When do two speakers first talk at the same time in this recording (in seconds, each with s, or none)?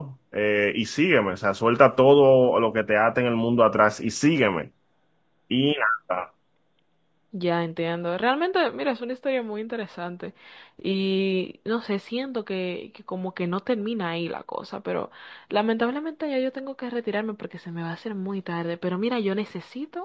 none